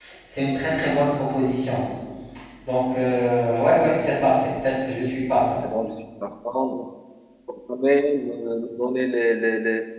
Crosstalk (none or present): none